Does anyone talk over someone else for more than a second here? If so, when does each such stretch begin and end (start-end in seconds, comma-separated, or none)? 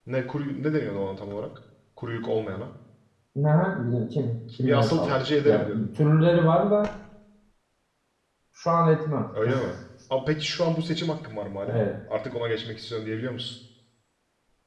4.6-5.9